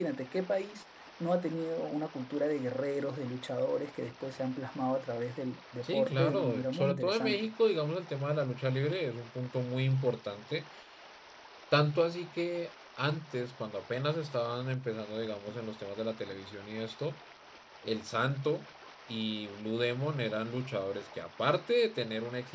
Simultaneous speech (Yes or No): Yes